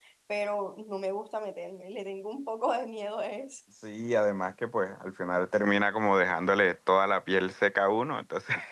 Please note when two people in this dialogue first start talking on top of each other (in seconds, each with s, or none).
none